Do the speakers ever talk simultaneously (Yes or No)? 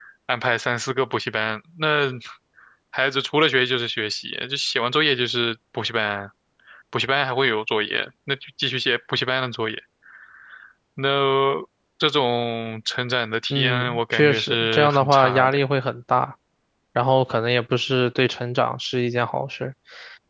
Yes